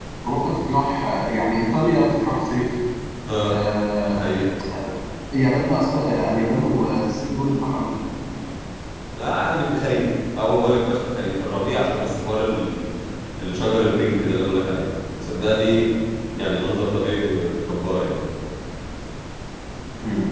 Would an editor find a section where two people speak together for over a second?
No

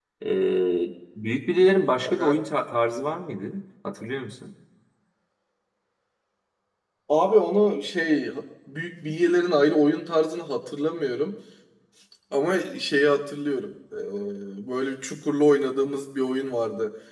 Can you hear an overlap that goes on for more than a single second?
No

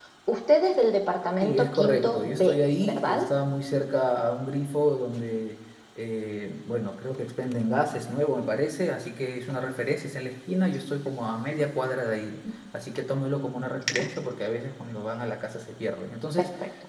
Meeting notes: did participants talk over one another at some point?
Yes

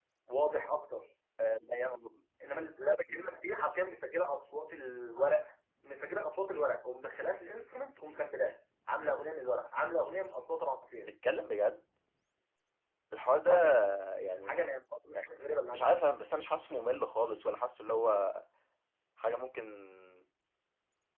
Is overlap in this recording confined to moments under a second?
Yes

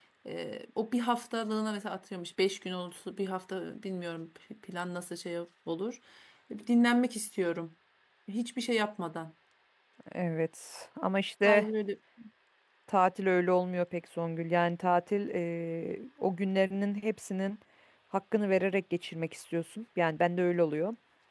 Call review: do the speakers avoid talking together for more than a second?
Yes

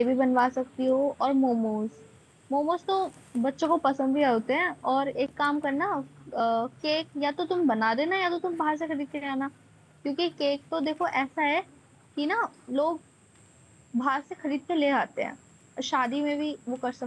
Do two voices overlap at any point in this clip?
No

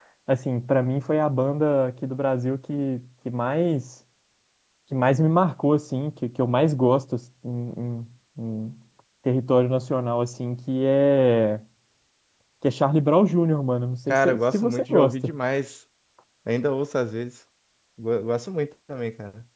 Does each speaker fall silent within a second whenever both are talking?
No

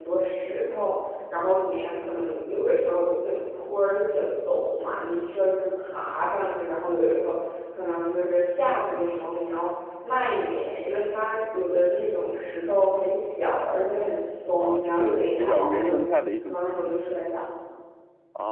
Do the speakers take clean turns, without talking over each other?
No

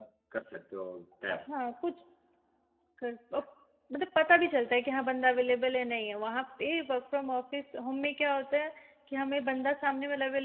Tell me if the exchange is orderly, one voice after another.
Yes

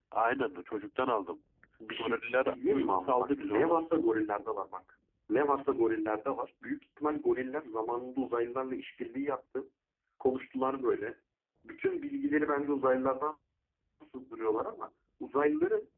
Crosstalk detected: Yes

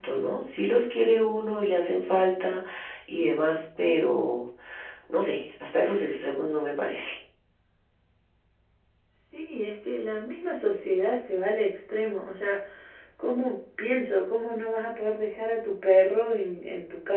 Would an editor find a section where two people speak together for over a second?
No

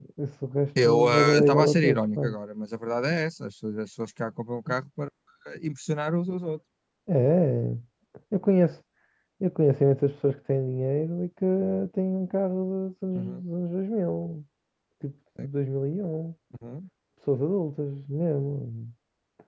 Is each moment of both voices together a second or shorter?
No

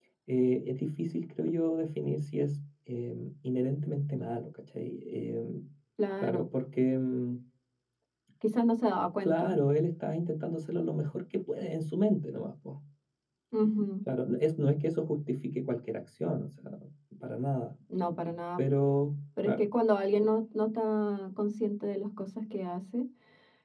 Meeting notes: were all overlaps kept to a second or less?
Yes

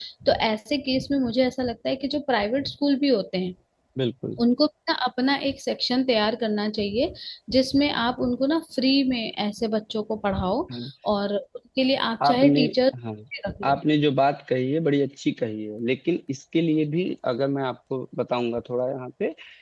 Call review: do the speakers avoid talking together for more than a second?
Yes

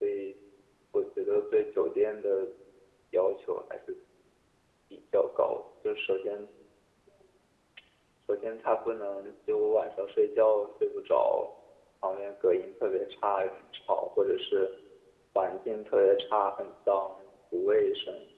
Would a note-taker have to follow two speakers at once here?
No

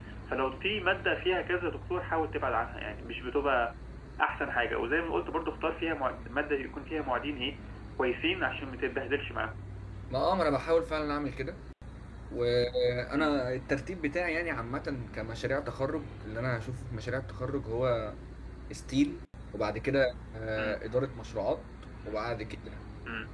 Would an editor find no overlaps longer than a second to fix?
Yes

